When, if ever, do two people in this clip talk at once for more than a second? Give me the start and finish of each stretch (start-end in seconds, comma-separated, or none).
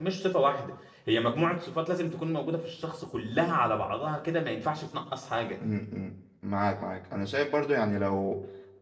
none